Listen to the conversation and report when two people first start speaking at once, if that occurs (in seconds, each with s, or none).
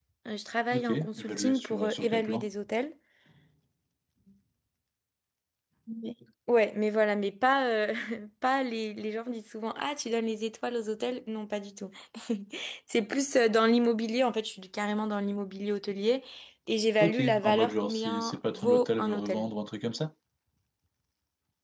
0.7 s